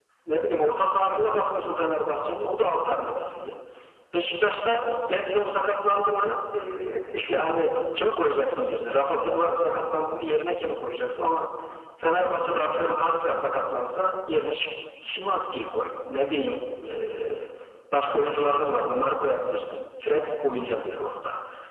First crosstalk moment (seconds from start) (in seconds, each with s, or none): none